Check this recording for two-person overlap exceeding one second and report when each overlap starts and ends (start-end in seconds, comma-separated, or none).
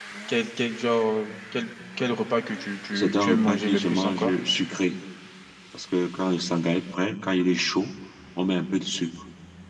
2.9-4.3